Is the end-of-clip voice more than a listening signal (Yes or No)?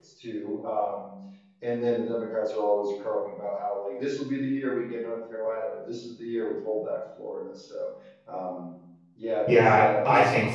Yes